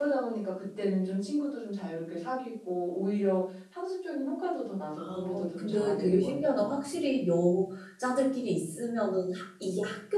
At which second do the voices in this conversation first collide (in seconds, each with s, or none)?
5.0 s